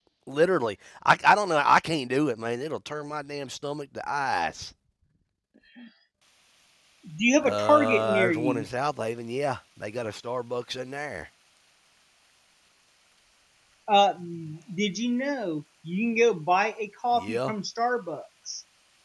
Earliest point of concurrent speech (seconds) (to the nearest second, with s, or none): 7 s